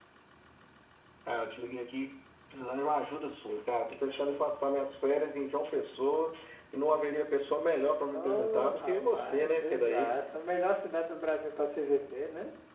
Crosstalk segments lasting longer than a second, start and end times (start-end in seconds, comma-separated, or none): 8.1-10.1